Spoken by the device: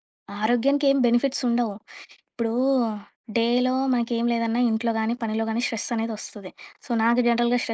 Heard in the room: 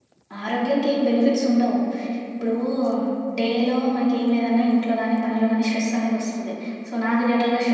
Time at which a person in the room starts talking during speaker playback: none

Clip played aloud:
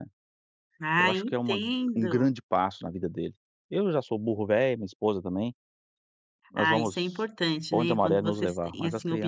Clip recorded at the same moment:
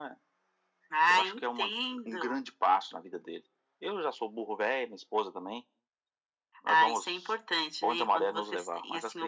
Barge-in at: none

